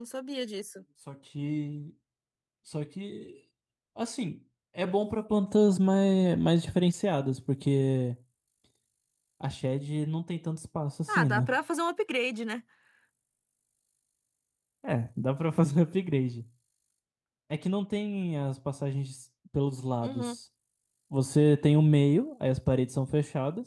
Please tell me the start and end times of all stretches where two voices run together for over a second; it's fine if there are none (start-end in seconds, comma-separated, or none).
none